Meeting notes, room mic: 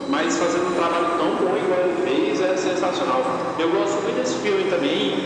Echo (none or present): present